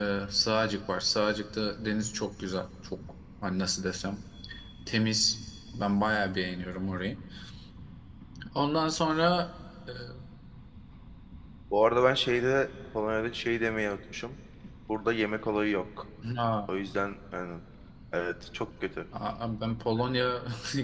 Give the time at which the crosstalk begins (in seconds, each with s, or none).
none